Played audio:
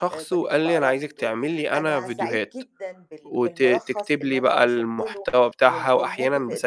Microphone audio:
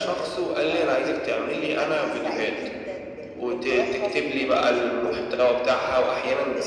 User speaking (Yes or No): No